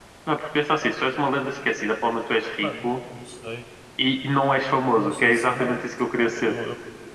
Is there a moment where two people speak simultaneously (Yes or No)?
Yes